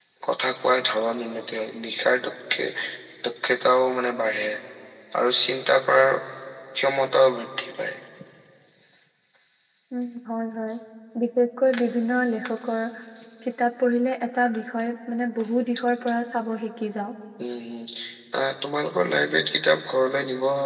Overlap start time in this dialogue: none

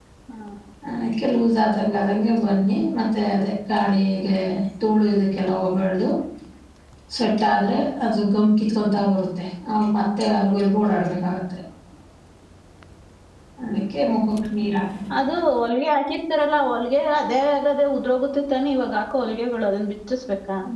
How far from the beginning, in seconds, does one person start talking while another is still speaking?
none

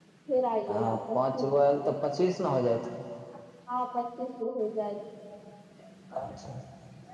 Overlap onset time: 0.7 s

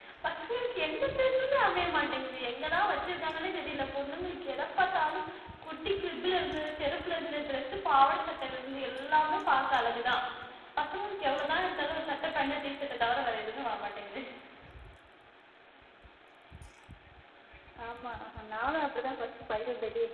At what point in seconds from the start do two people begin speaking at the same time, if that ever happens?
none

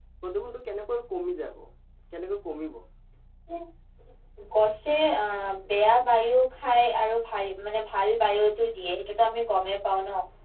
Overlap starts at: none

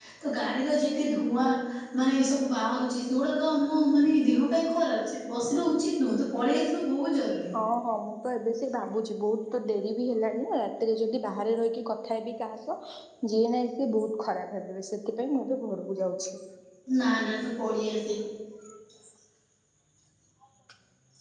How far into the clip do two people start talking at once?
none

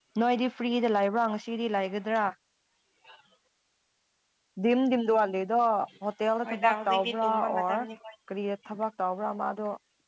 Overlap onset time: 6.4 s

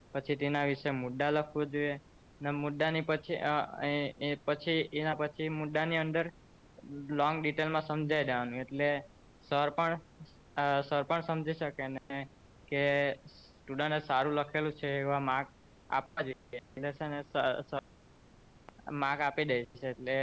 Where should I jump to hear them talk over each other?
none

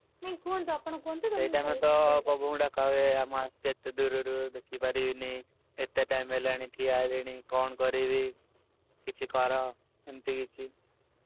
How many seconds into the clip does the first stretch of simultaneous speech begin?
1.3 s

